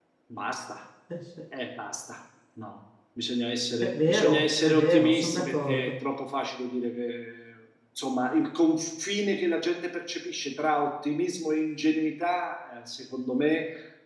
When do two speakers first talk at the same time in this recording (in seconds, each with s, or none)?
3.8 s